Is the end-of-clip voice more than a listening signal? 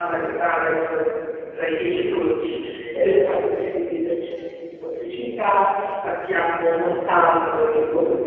No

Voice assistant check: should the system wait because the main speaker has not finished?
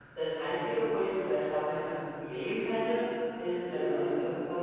Yes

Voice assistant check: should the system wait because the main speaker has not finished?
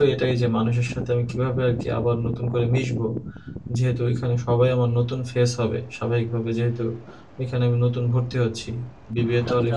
Yes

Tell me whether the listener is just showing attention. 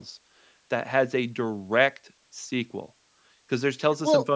Yes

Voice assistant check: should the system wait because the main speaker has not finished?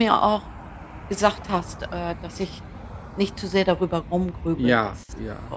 No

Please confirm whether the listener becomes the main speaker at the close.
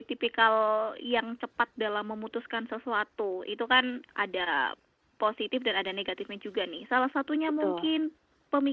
No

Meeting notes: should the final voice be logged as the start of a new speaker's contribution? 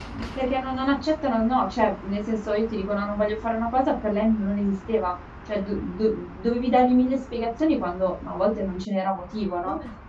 No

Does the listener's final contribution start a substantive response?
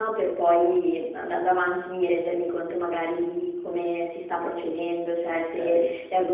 No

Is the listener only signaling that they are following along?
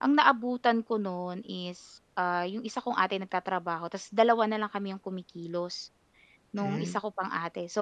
Yes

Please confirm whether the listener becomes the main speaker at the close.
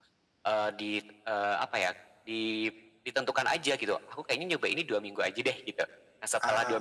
No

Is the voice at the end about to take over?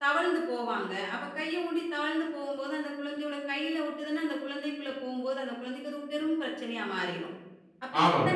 Yes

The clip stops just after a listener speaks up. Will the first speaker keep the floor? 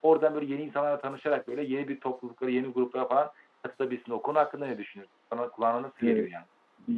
No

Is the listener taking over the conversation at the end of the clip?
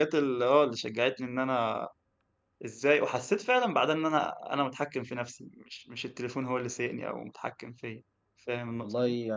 Yes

